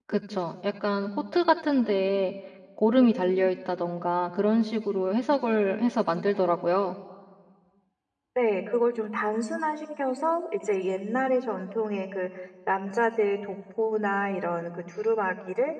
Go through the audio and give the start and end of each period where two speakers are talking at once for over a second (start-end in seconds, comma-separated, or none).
none